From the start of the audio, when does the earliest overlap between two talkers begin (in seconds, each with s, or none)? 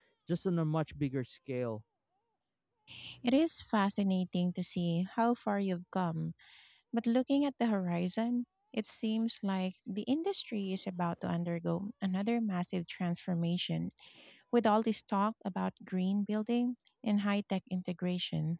none